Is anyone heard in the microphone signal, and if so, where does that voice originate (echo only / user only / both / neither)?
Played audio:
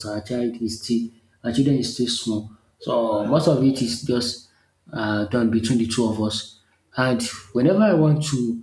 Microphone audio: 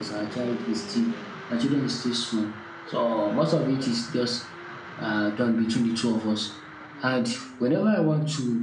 echo only